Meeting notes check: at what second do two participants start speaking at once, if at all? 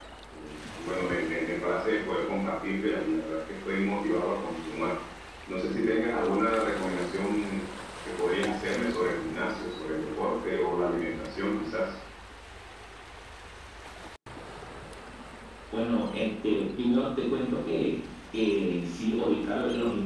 none

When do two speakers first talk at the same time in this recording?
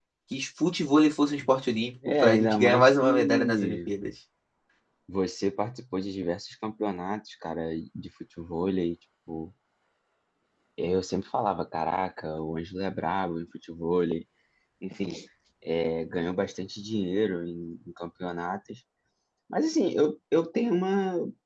2.0 s

